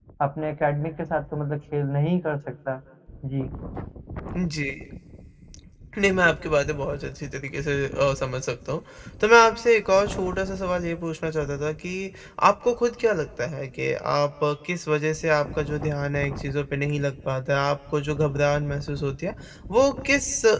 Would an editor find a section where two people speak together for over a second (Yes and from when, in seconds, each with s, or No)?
No